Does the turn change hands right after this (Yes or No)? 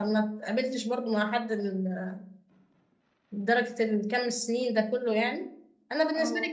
No